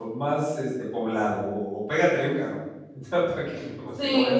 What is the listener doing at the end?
taking over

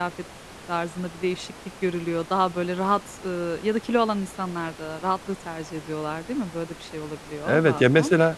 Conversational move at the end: taking over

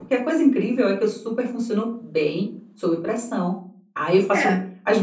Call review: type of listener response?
listening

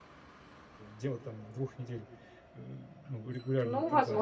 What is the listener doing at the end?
taking over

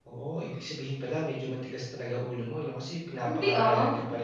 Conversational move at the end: listening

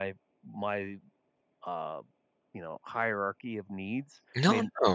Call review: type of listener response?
taking over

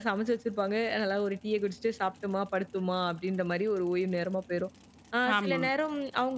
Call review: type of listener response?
listening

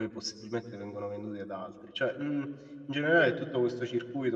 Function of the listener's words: listening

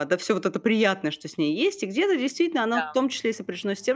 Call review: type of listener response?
listening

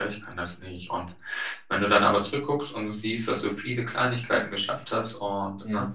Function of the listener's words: listening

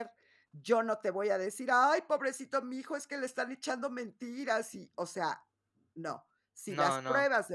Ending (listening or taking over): listening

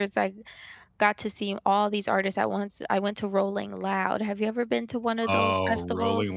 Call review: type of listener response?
taking over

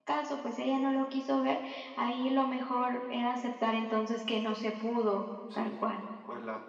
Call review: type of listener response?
taking over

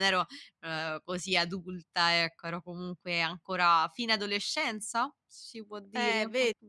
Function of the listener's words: taking over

